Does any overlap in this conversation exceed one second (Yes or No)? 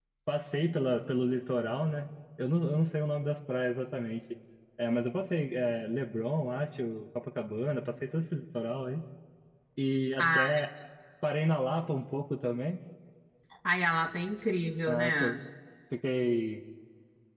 No